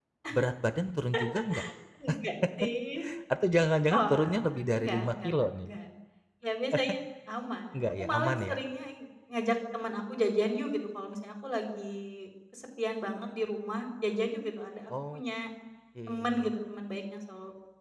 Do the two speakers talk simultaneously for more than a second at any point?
Yes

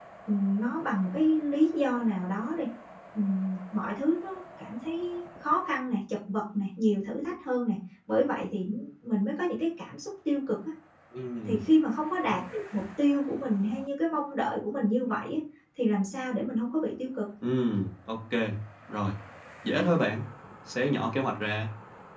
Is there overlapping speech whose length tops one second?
No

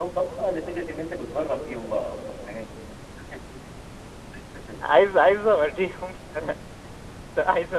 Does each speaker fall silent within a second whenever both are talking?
Yes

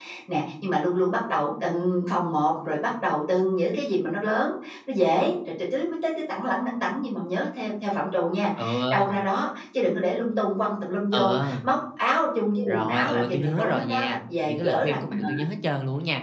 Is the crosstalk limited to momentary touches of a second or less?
No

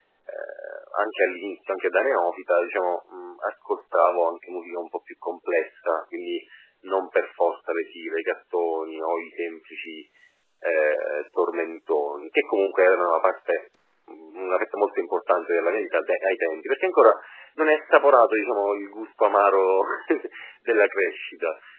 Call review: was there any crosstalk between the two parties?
No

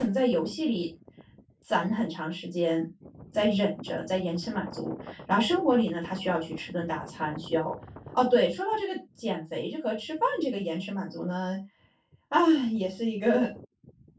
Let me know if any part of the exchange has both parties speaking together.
No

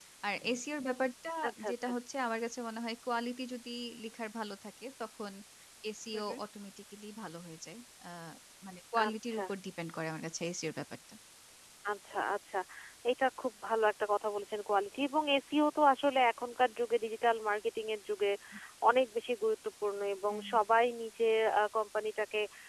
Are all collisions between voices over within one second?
Yes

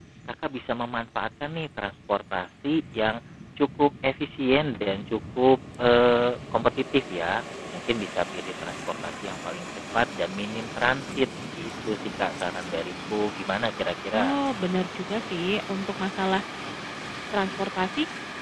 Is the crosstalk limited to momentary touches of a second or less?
Yes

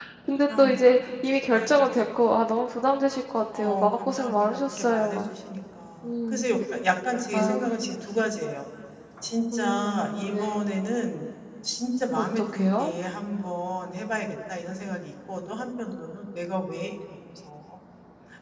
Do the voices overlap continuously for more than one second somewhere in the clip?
Yes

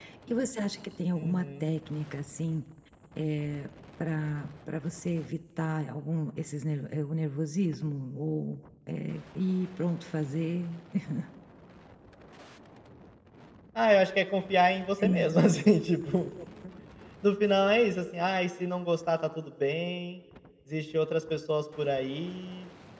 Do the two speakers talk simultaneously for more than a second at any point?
No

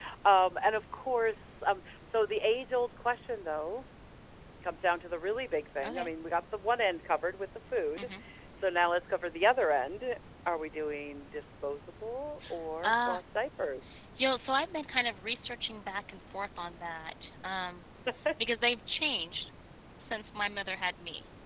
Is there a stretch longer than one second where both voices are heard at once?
No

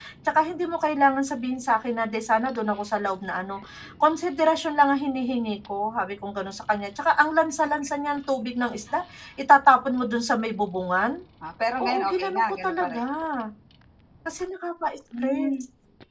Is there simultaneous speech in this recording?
Yes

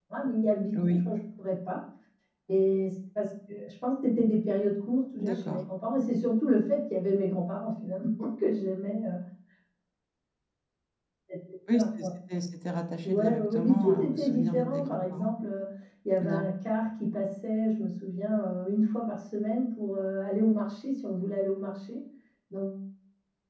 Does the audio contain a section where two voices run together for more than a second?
Yes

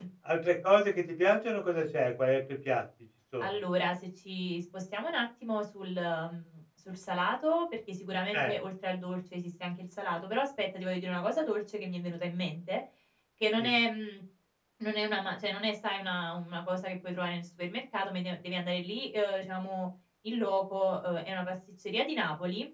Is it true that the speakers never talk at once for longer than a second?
Yes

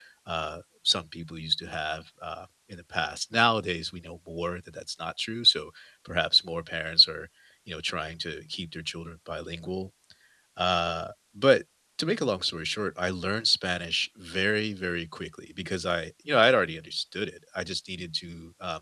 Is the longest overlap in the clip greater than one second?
No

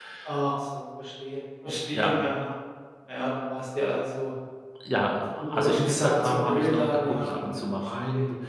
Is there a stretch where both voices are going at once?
Yes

